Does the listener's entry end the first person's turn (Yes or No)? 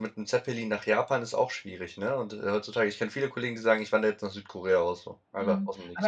Yes